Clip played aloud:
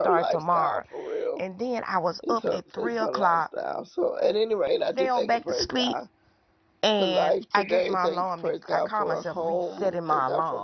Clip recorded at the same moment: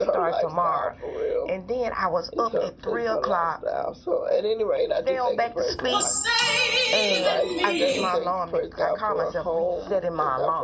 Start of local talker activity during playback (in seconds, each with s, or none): 5.9 s